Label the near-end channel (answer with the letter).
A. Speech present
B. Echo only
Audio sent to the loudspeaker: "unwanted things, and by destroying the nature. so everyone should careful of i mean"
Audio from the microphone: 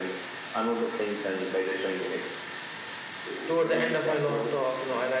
A